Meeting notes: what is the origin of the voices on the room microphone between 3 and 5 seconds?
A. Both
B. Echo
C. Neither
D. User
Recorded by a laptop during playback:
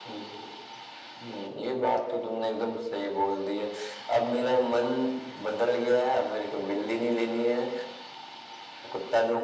B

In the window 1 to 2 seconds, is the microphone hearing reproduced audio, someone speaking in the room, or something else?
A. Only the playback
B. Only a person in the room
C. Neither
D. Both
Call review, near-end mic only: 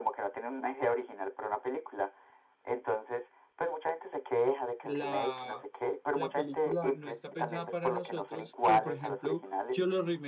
A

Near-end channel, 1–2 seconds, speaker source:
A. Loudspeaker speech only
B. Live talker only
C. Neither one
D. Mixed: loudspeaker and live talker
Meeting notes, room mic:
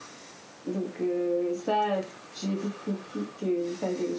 A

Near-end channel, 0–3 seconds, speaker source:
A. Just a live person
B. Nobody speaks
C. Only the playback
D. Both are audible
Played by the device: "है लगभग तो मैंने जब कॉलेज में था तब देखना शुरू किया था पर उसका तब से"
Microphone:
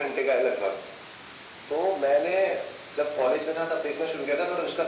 C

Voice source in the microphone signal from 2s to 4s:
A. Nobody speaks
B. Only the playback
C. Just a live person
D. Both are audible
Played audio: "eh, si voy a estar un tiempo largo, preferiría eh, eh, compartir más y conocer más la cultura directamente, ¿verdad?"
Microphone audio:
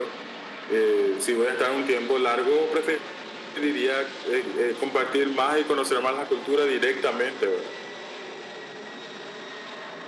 B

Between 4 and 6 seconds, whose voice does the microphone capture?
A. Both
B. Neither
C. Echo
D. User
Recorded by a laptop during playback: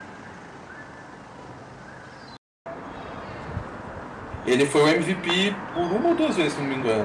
D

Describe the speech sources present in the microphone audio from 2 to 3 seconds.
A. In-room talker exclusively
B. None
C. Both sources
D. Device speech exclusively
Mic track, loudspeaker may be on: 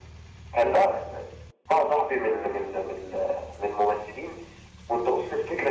D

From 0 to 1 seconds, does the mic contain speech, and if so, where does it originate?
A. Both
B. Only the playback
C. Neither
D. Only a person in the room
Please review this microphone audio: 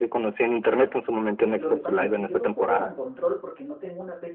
B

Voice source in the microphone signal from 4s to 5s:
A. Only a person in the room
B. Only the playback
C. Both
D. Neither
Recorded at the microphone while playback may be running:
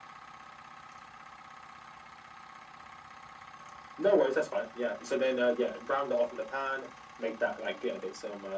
B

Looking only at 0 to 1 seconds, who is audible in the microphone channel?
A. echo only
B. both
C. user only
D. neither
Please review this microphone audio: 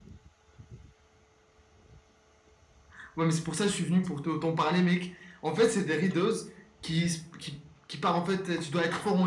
D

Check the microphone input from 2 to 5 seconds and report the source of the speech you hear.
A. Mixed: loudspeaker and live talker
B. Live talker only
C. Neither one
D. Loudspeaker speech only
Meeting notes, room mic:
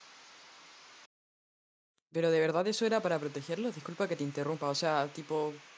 B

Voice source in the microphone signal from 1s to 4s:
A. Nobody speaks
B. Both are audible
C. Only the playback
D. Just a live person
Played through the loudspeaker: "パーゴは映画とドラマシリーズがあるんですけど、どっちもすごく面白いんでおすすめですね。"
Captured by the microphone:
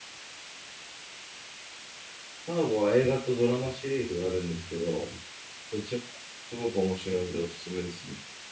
C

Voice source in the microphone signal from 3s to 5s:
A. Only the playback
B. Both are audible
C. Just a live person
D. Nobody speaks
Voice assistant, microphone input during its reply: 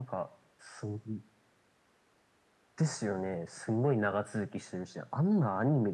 A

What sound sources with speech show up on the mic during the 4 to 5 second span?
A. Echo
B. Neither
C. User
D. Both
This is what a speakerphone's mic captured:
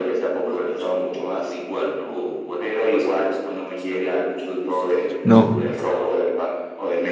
A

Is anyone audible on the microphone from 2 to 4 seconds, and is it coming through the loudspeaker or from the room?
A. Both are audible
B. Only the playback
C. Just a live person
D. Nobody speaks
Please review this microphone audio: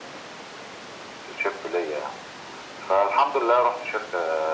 B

